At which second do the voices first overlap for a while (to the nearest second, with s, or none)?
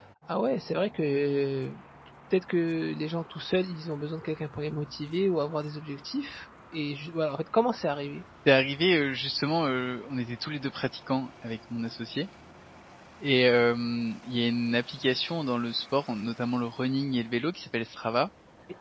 none